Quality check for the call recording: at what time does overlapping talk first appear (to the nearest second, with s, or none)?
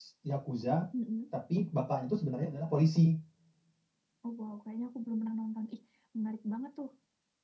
none